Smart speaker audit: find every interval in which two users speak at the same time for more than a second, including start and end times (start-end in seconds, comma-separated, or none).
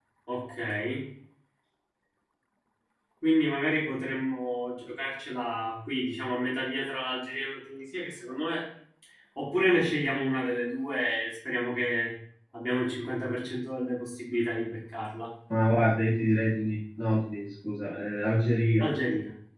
none